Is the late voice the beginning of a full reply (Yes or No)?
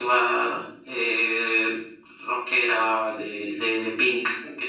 Yes